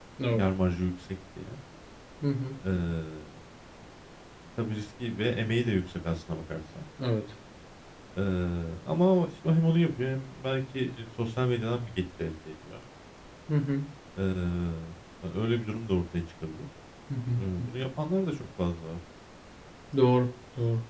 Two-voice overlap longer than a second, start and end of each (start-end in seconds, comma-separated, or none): none